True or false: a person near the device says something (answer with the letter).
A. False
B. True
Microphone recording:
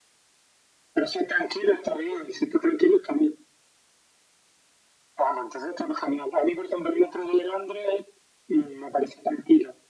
A